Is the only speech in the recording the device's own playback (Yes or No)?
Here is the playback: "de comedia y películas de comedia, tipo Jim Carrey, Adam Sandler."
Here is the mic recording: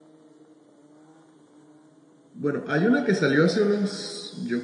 No